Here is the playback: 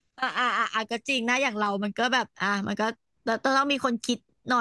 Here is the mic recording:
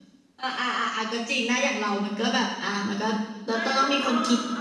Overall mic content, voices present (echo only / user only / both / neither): both